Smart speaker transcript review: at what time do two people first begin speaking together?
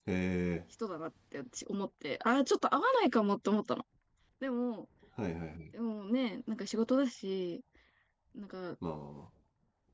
none

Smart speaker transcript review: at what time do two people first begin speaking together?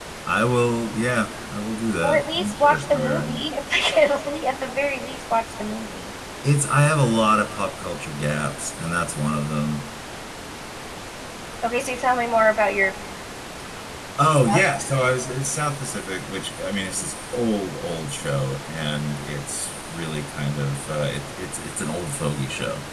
2.0 s

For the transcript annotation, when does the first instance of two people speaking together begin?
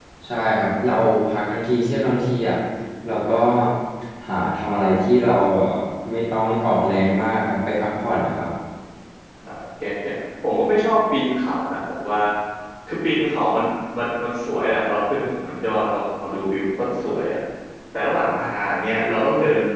none

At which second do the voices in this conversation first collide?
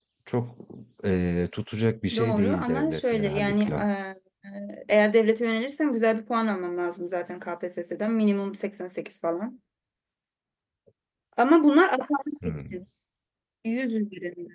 2.2 s

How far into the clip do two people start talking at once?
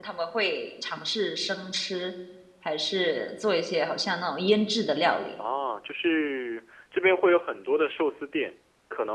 none

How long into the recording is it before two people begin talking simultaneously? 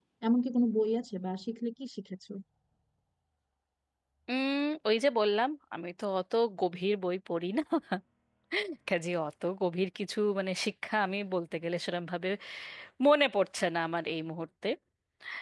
none

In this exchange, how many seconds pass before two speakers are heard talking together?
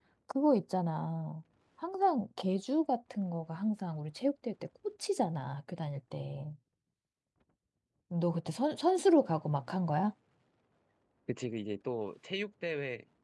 none

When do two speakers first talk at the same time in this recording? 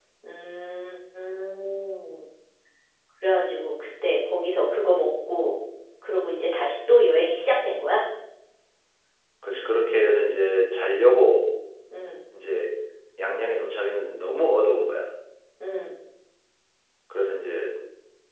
none

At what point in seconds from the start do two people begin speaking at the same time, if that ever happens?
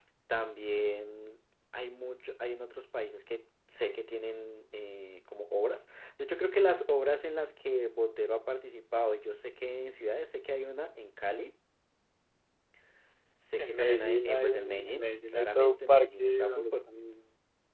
13.6 s

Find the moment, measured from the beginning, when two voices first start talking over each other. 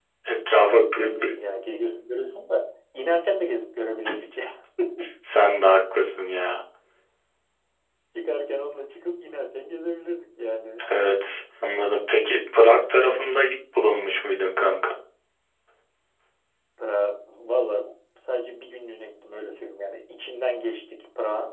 none

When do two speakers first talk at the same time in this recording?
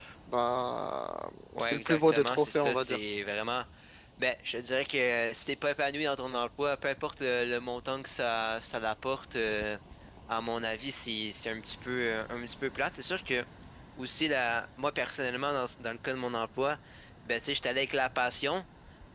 1.6 s

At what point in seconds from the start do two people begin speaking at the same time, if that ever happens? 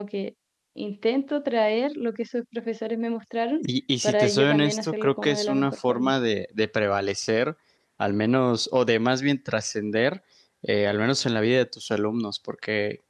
4.0 s

